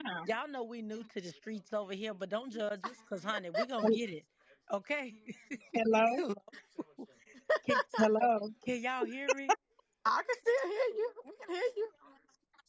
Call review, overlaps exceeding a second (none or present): none